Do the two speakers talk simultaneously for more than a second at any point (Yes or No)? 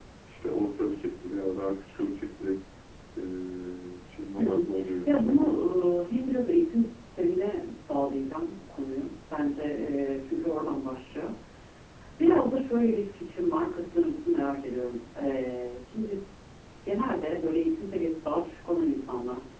No